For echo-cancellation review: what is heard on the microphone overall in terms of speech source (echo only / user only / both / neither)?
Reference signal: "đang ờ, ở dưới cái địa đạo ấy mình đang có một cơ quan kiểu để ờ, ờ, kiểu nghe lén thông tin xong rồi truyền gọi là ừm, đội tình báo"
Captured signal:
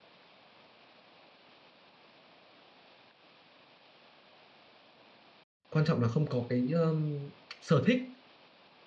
user only